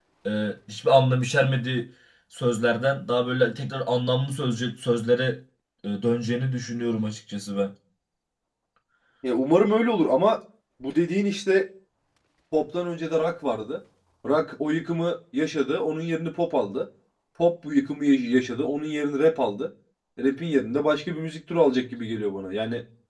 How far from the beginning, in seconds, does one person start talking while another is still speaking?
none

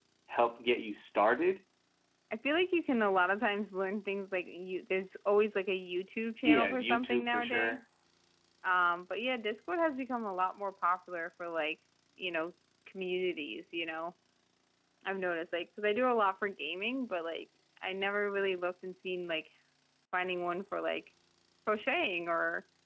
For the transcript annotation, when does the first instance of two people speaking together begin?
6 s

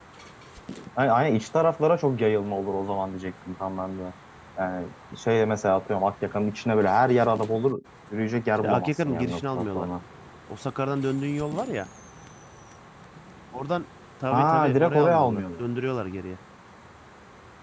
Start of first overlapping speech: 9 s

